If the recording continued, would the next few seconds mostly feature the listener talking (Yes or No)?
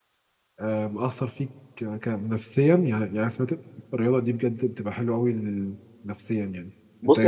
Yes